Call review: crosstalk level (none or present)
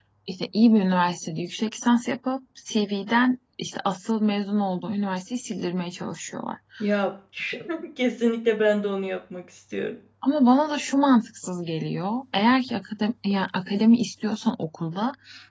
none